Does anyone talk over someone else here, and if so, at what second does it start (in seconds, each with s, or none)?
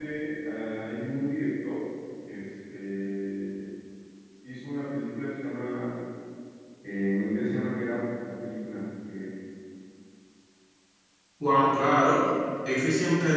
none